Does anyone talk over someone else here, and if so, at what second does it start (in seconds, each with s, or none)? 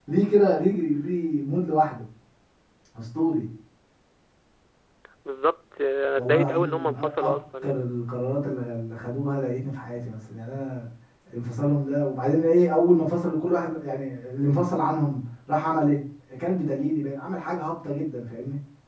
6.1 s